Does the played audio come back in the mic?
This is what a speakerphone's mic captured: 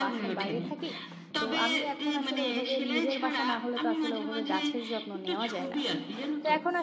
Yes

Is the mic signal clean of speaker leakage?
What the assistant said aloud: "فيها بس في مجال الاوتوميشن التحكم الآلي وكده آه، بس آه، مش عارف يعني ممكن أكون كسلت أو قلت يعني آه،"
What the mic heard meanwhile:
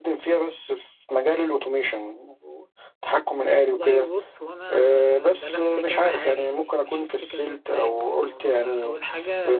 No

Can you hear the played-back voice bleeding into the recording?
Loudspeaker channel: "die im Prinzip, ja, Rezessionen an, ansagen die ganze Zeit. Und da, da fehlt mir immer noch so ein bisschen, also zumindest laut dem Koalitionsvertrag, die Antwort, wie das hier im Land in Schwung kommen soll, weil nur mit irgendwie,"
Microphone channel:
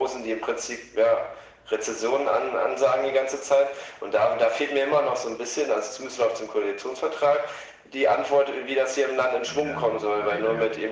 Yes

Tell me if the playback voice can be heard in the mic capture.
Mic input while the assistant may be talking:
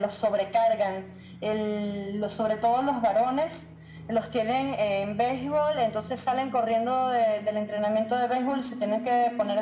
Yes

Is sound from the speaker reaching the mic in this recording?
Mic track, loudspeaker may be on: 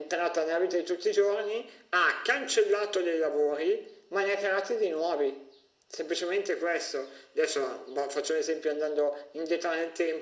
Yes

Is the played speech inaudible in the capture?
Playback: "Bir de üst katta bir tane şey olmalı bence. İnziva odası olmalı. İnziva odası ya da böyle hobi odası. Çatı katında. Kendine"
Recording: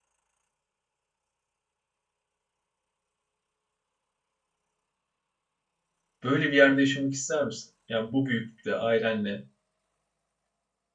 Yes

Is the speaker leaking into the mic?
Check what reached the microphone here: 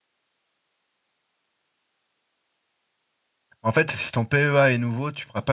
No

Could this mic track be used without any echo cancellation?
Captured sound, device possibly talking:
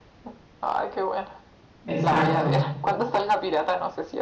No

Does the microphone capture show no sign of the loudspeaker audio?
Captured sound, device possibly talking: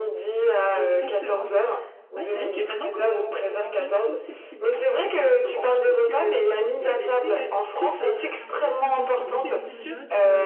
No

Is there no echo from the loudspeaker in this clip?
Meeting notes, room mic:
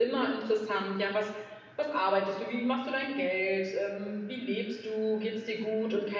Yes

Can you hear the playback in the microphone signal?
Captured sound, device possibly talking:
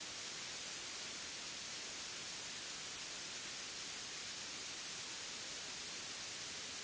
No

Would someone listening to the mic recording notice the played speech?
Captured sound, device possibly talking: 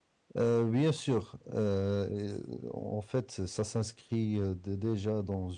No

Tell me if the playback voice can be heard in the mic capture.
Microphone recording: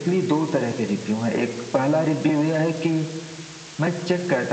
Yes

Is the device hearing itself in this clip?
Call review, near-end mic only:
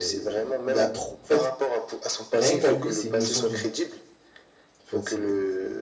Yes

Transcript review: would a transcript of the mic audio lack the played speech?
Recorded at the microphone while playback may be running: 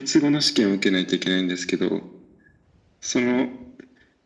No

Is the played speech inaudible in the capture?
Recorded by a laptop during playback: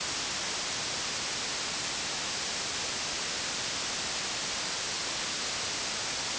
Yes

